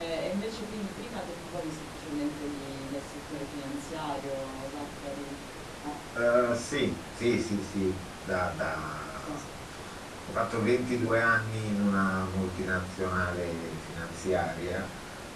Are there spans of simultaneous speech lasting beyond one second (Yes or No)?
No